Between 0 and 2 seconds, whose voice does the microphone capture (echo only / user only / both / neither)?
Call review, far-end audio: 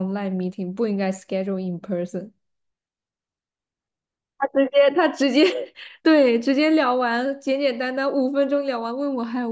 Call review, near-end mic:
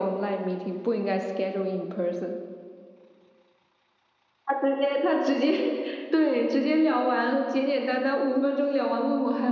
echo only